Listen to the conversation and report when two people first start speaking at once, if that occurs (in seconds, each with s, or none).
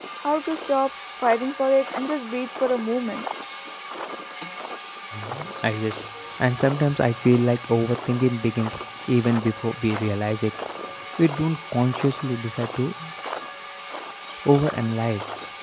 none